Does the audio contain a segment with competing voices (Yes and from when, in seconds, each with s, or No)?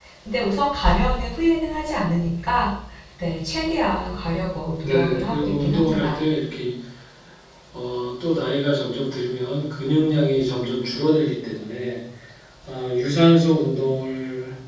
Yes, from 4.8 s